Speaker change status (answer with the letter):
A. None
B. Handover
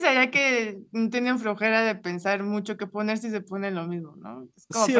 B